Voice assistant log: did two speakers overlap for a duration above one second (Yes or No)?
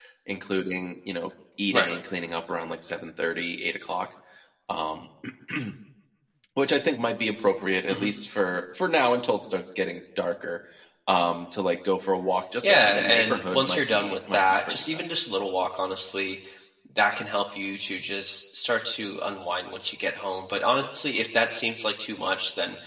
Yes